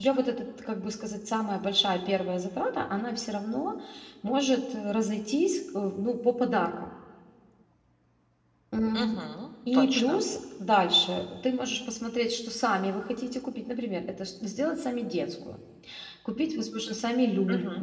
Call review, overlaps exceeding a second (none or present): none